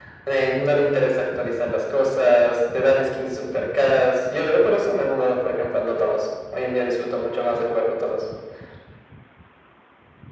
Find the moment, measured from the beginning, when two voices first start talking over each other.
none

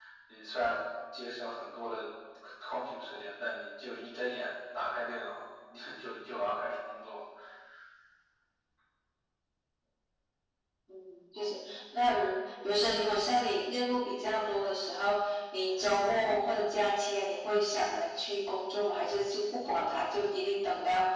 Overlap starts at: none

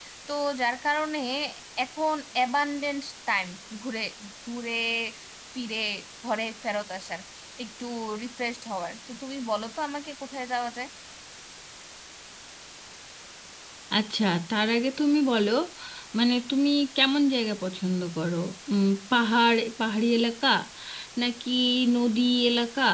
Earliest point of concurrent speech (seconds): none

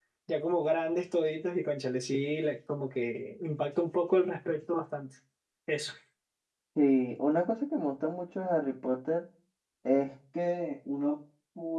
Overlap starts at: none

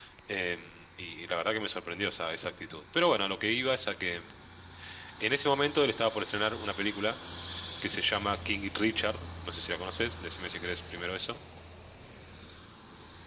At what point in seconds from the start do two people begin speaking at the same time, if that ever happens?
none

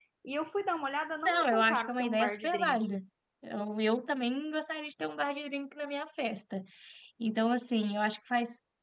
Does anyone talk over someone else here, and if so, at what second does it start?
1.2 s

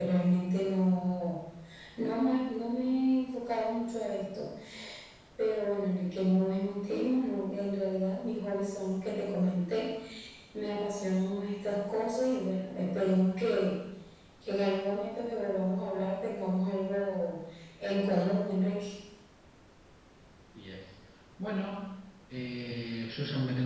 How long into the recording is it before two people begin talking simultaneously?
none

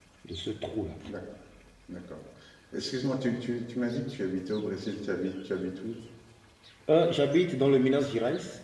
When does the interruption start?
none

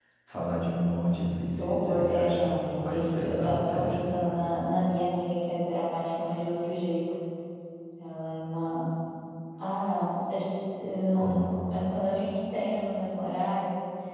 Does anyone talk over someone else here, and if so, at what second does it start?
1.5 s

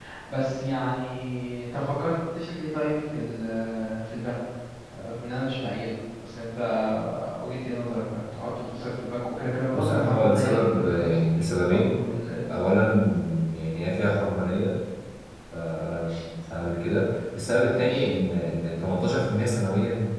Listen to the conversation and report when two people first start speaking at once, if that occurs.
9.7 s

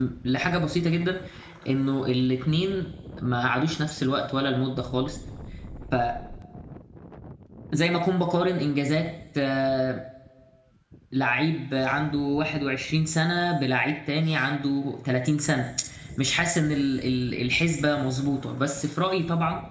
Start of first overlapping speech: none

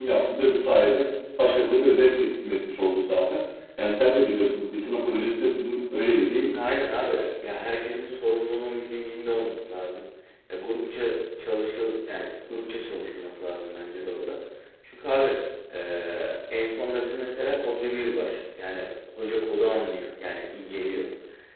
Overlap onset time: none

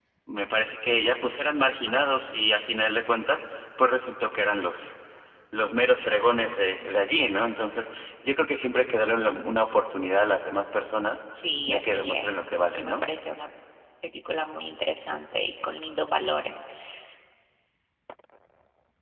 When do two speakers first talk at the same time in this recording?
11.7 s

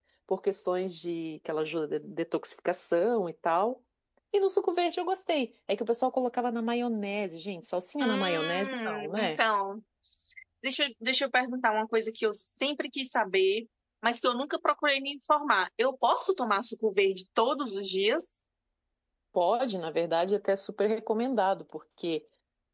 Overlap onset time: 8.0 s

